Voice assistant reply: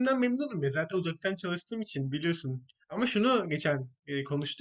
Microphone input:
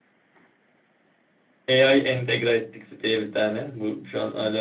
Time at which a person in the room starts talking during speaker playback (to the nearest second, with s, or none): 2 s